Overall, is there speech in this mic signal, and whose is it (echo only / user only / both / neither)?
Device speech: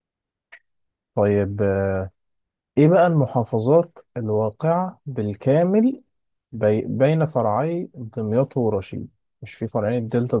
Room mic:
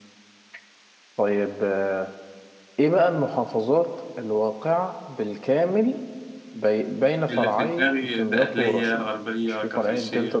both